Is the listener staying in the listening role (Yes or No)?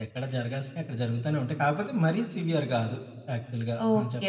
No